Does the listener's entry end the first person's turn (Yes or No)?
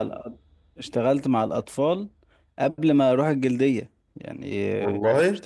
No